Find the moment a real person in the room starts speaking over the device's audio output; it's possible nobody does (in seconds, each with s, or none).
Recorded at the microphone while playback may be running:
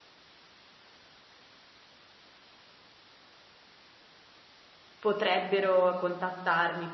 5.0 s